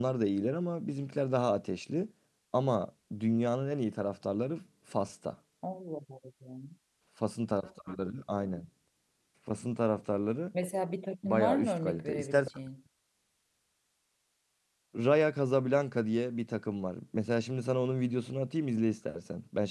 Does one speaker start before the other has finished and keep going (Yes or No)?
Yes